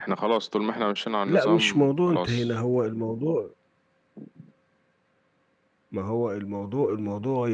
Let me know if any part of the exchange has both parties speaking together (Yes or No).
Yes